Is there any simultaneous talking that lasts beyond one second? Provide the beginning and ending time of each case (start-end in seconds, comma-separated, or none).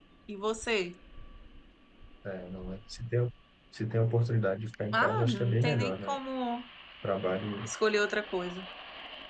4.9-6.2